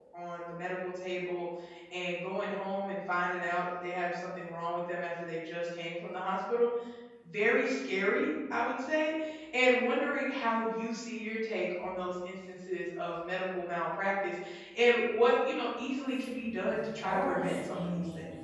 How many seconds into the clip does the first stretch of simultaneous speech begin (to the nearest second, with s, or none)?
17 s